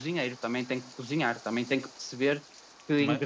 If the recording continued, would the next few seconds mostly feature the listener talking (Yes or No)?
No